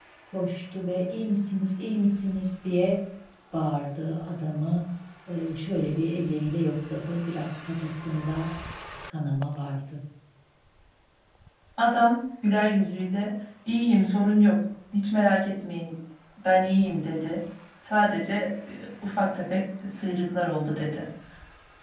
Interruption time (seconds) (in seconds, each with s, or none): none